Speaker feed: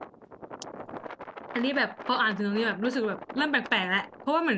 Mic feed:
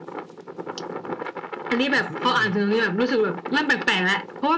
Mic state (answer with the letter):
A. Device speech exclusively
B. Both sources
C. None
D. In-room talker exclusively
B